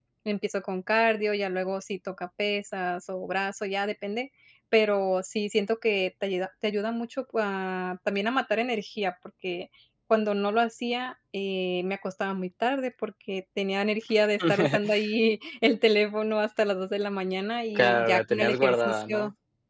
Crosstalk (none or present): present